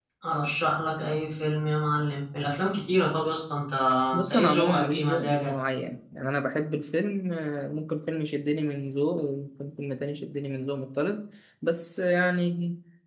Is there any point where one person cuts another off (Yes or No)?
Yes